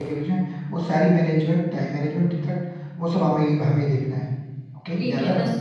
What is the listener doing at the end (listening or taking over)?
taking over